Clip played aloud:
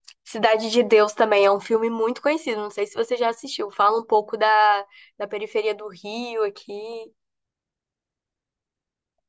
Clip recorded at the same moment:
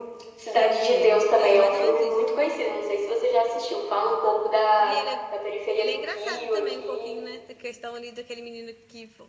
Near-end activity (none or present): present